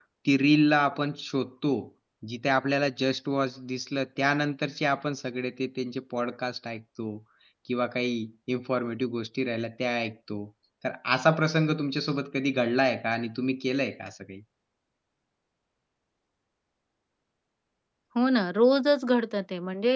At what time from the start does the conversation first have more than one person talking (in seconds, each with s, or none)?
none